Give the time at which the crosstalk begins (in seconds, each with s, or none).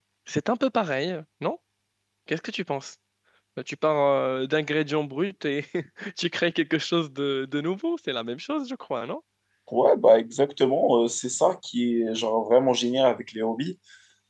none